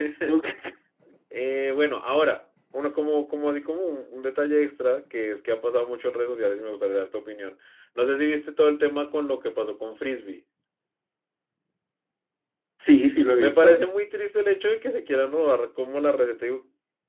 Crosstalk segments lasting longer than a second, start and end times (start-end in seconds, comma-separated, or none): none